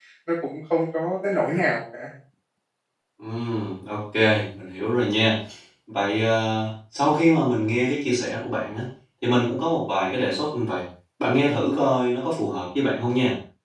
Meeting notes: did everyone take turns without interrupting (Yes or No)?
Yes